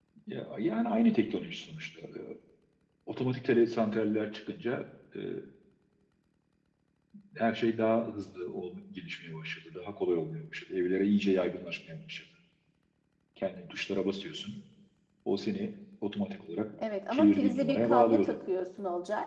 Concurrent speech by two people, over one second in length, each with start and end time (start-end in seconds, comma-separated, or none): 17.1-18.3